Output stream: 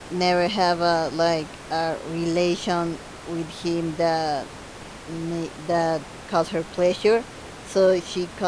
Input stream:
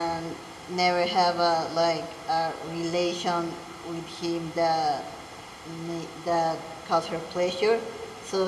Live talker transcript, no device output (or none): none